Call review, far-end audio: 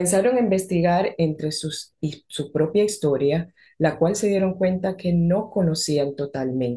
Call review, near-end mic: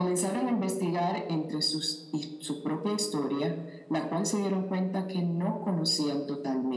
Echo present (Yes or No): Yes